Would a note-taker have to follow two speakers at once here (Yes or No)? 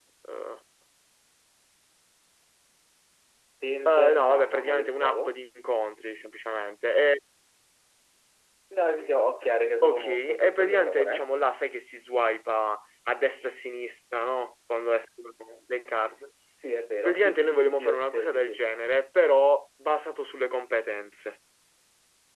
Yes